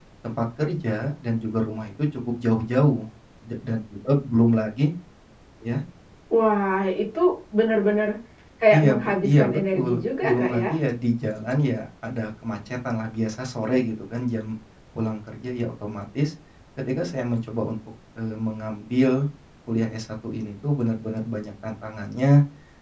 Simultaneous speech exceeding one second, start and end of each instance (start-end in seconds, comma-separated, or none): 8.7-10.7